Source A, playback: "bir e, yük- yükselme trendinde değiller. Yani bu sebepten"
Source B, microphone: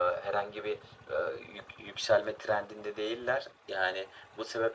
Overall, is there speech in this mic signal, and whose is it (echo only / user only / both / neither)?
echo only